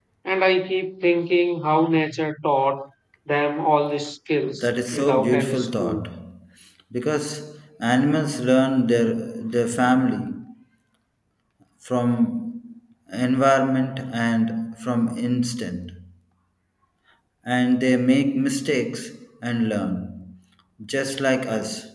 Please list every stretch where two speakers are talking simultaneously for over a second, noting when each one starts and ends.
4.6-6.0

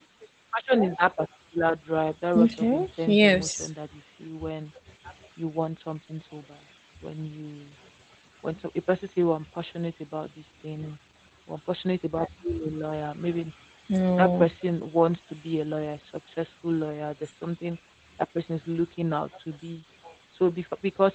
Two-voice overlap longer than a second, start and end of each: 2.4-3.7

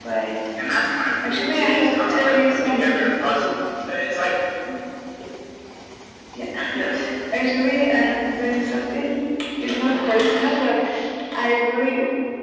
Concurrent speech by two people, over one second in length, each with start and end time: 1.2-3.1

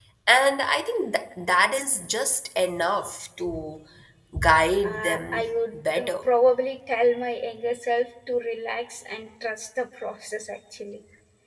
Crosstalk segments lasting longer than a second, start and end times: 4.8-6.1

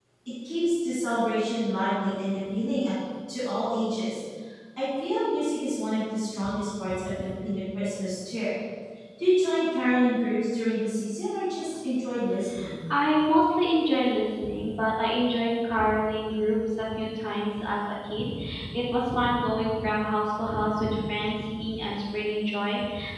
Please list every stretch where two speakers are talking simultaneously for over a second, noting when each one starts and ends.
none

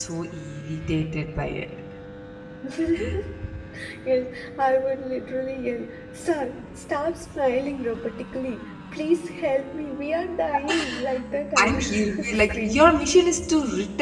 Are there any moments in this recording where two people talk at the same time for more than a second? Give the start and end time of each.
11.6-12.8

